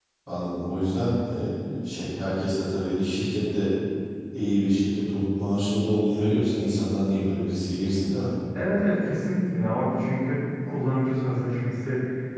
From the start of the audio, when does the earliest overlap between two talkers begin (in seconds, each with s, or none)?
none